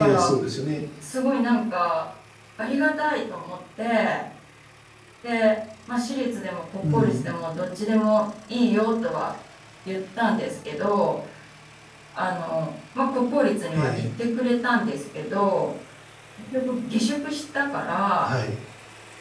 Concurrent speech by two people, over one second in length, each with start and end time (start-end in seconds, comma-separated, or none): none